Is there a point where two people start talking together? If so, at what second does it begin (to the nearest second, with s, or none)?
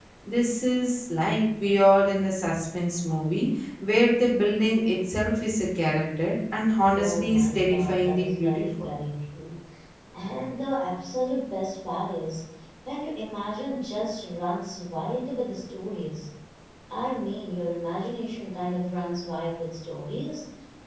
7 s